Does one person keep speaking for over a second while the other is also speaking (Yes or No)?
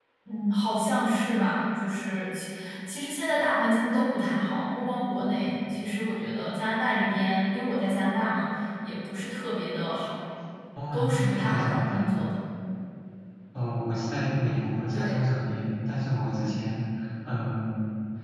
Yes